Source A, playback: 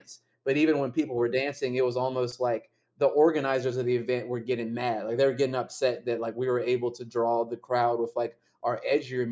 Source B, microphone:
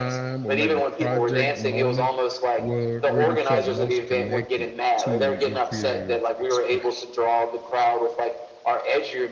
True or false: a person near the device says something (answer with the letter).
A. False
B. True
B